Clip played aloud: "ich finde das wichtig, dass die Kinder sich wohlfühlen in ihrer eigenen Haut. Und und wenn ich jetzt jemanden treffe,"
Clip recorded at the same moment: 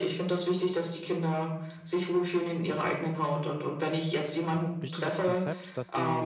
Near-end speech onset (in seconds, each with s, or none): 4.8 s